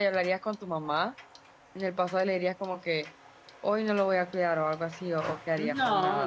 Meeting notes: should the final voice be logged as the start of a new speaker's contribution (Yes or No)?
Yes